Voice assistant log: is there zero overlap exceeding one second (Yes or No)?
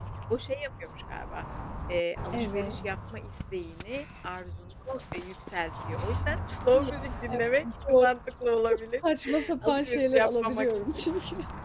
No